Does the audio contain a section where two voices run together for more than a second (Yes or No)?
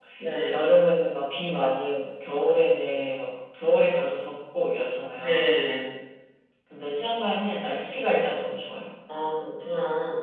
No